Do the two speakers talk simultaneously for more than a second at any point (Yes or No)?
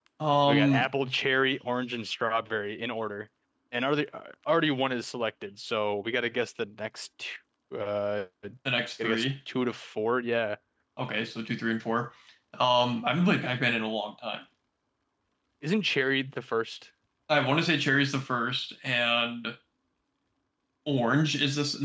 No